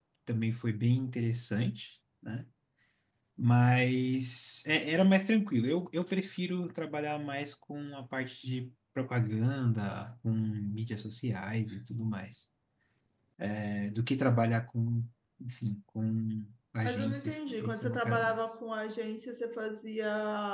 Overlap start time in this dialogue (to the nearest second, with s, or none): 17 s